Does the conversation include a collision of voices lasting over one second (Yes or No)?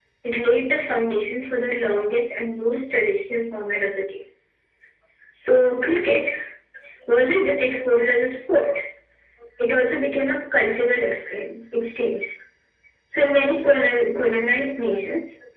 No